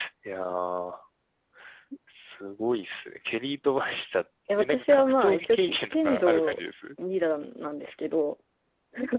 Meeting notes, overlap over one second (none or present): present